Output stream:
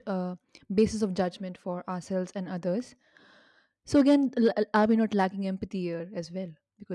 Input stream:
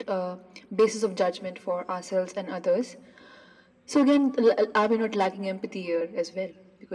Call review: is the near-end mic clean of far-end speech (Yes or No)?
No